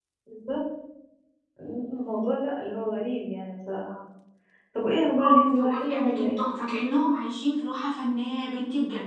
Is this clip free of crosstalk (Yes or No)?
No